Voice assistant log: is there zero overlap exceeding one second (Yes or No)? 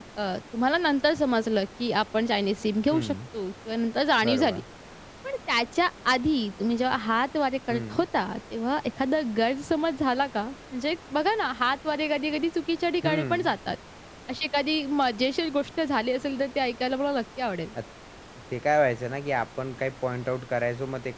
Yes